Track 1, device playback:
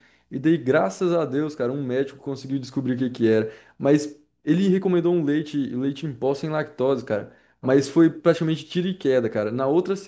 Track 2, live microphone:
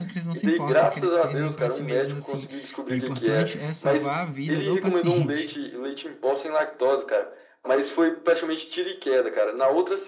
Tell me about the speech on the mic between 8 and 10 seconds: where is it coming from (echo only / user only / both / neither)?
echo only